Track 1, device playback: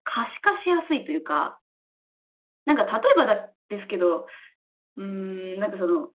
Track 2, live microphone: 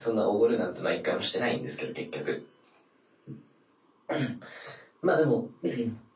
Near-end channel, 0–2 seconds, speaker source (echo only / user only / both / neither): user only